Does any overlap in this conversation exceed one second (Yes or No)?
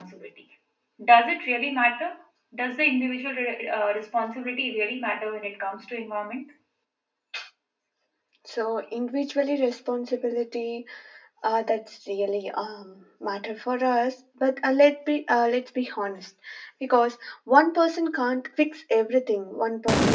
No